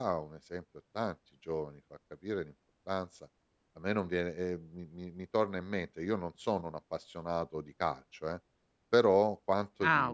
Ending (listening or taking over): listening